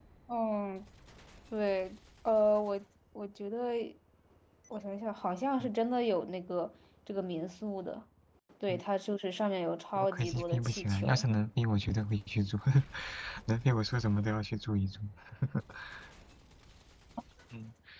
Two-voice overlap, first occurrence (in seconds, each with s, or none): 10.0 s